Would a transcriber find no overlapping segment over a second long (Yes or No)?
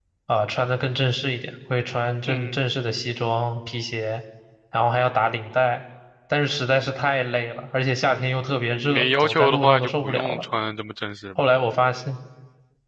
No